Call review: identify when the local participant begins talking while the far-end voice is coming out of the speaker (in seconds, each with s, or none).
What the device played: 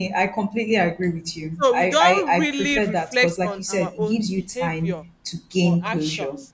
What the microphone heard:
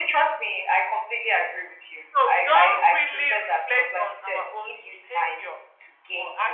none